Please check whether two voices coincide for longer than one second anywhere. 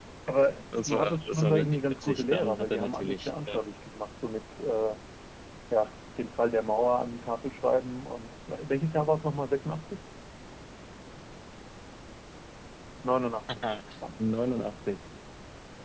Yes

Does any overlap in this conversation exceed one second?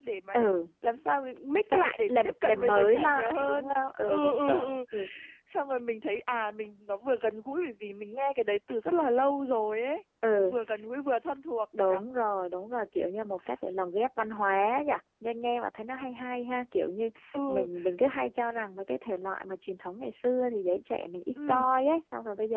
Yes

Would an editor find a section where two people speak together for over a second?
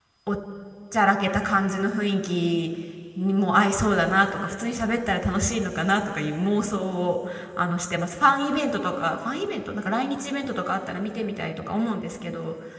No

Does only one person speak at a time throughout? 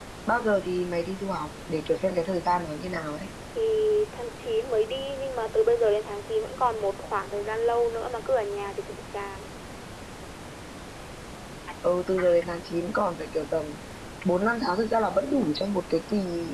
Yes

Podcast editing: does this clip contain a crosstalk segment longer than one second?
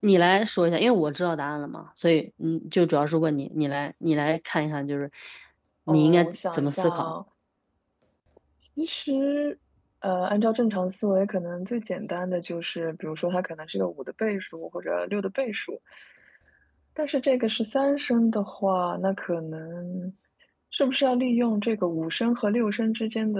Yes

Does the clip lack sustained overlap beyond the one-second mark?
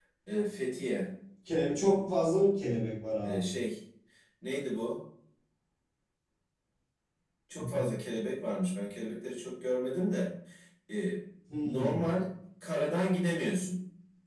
Yes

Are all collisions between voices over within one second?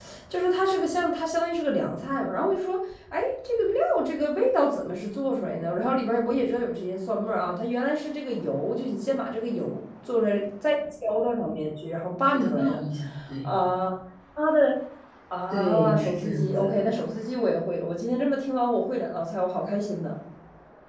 No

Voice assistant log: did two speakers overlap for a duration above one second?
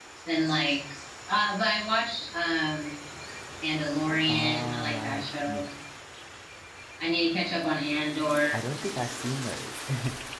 Yes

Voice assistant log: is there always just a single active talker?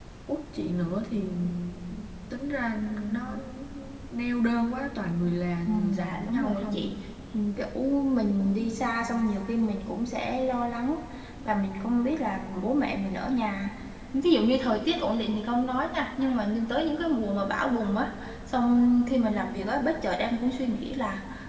No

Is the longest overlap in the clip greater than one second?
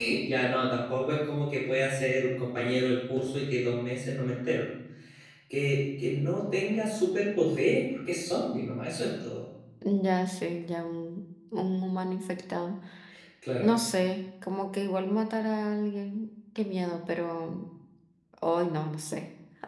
No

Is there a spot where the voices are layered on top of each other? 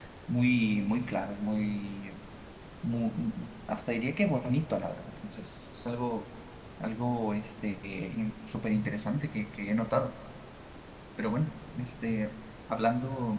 No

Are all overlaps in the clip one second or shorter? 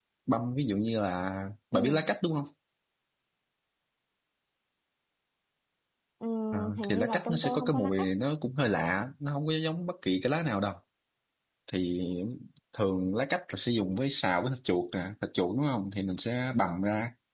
No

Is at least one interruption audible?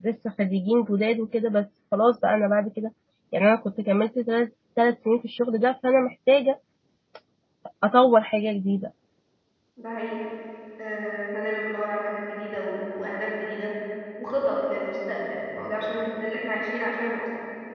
No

